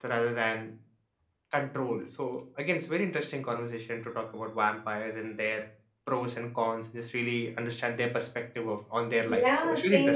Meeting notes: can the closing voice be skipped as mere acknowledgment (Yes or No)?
No